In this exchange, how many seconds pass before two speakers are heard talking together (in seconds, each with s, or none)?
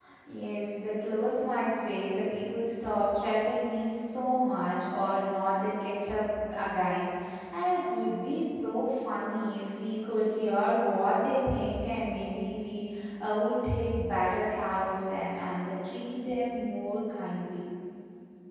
none